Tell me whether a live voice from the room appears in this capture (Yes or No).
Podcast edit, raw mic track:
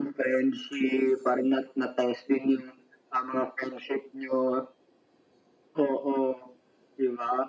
No